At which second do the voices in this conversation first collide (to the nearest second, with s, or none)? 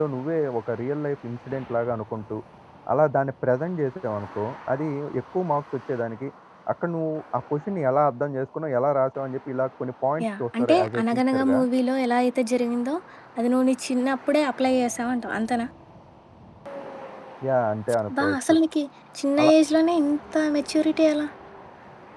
10 s